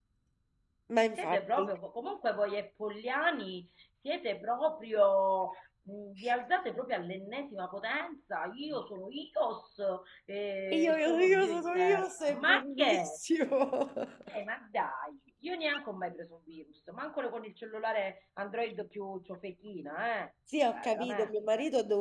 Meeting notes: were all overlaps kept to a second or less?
No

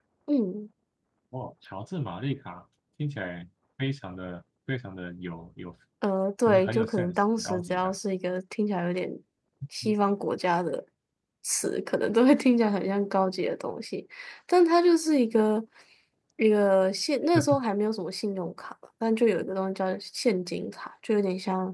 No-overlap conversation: No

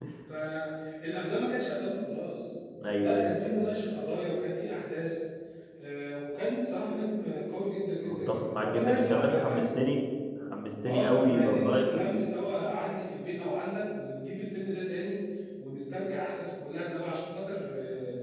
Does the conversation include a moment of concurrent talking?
Yes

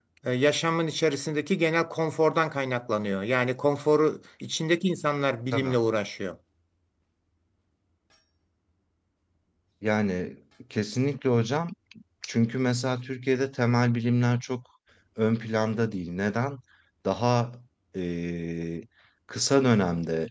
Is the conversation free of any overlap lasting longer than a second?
Yes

